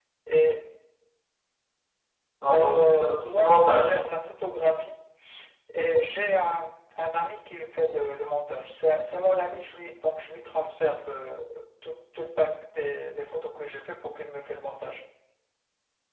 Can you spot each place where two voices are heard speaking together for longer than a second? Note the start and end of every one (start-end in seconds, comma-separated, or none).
2.5-3.9